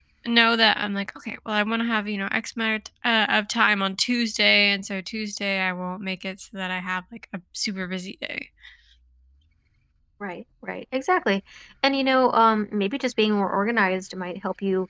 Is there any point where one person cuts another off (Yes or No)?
No